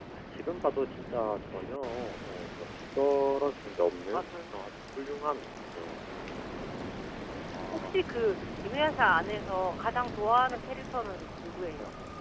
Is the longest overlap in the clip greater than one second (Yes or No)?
No